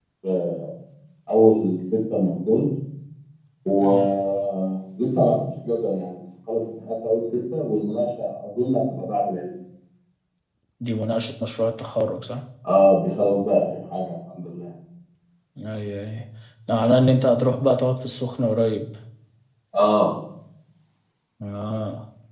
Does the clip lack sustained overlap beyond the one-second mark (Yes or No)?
Yes